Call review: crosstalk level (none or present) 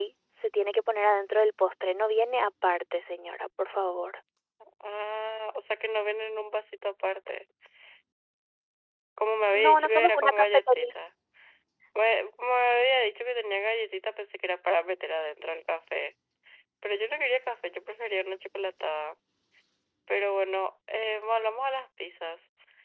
present